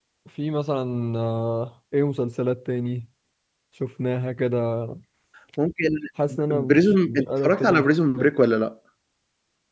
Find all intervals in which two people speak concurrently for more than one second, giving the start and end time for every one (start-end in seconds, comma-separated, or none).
6.5-8.3